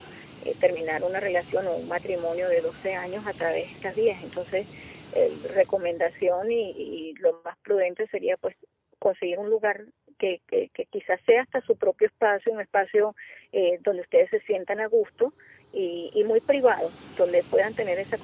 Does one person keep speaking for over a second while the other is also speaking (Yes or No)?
No